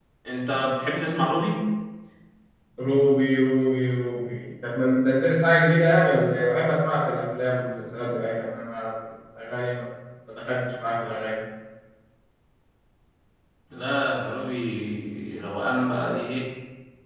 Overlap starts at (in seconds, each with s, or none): none